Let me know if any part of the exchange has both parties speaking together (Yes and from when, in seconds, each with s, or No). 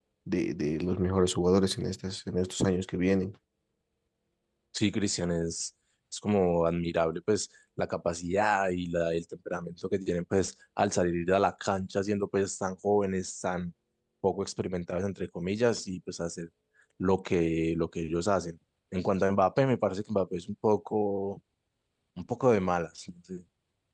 No